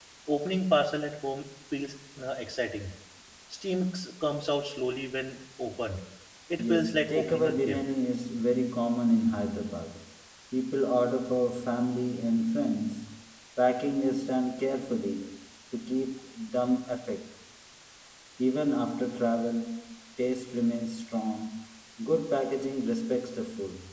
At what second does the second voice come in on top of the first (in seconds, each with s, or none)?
6.7 s